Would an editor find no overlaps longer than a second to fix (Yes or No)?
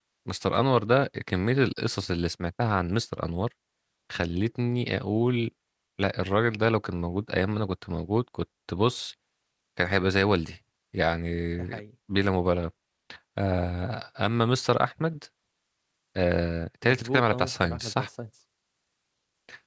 No